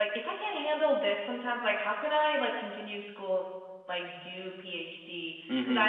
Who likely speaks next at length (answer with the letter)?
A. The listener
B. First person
B